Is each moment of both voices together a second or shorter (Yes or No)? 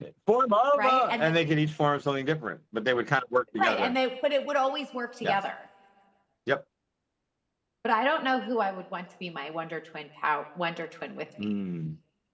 Yes